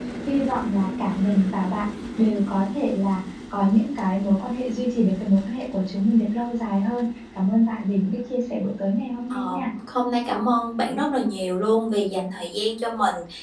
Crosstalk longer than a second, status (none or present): none